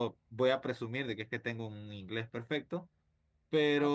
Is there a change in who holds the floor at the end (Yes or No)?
Yes